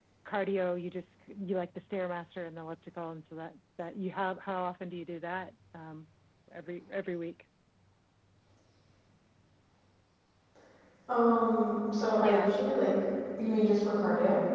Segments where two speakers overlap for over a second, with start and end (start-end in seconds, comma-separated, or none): none